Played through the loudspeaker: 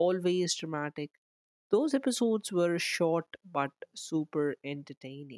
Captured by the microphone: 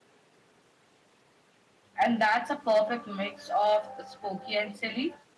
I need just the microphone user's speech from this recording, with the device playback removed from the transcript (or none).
and that's a perfect mix of spooky and silly